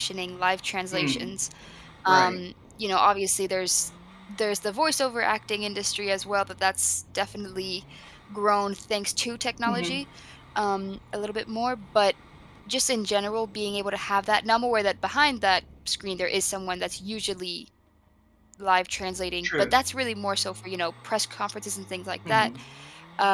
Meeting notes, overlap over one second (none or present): none